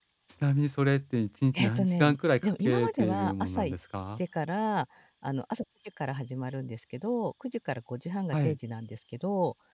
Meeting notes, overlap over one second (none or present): present